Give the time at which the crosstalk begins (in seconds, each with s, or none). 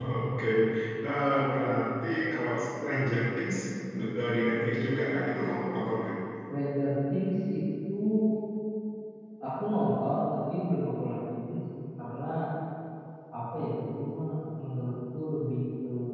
none